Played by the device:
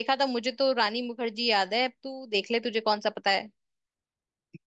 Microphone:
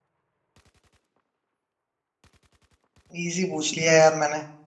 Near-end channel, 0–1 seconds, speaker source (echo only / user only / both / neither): neither